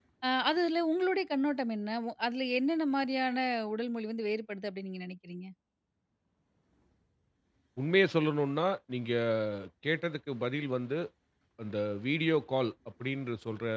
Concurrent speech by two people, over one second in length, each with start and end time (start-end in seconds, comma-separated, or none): none